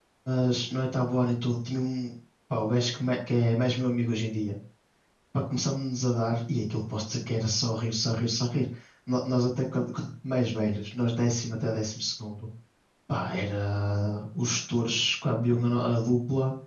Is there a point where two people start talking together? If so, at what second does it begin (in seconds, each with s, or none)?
none